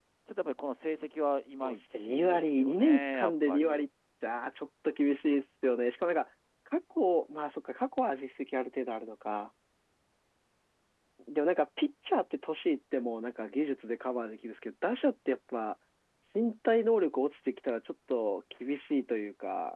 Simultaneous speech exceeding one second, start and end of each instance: 1.6-3.8

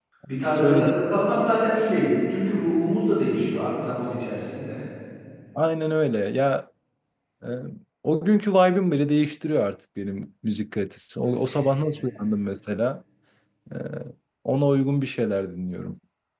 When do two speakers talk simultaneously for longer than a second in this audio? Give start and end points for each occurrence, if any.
none

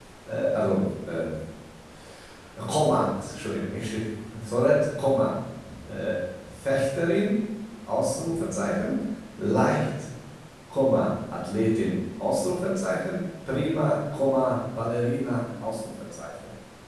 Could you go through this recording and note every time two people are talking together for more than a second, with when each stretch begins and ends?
none

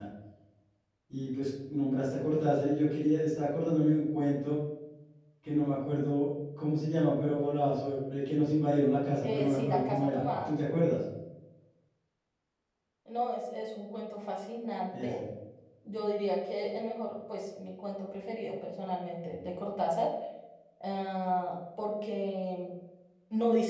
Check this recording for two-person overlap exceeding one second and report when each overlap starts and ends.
9.2-10.5

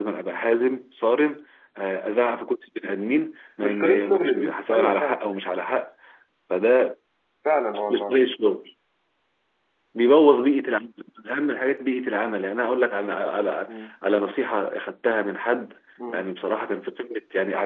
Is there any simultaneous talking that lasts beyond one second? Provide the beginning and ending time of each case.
3.6-5.2

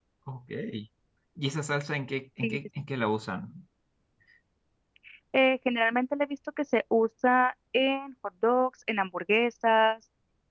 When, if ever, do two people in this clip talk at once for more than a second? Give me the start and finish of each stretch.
none

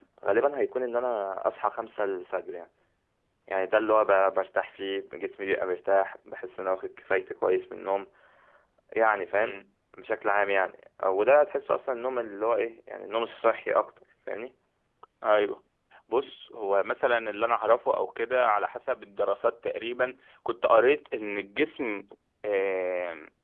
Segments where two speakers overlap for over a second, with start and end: none

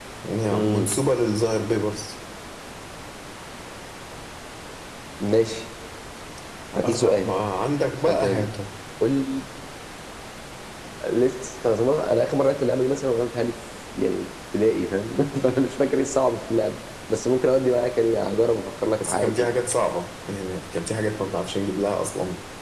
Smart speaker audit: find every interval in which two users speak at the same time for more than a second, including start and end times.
none

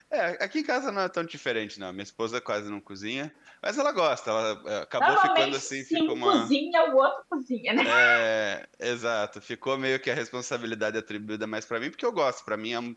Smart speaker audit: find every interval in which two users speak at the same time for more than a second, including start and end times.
5.0-6.5

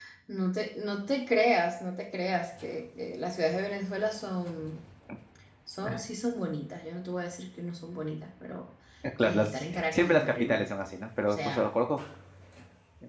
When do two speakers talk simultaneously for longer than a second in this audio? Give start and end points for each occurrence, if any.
9.2-10.7

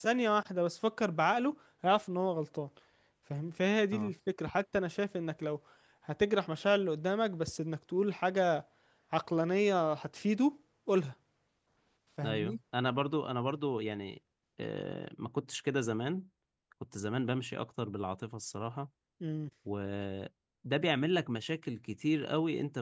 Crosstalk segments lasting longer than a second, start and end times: none

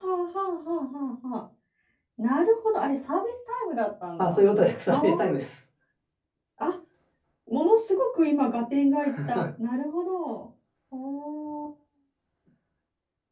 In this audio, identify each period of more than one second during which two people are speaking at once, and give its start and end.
none

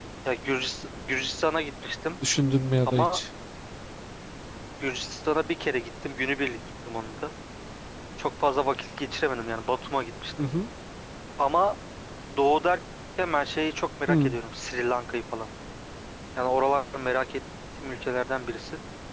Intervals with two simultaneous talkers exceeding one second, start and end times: none

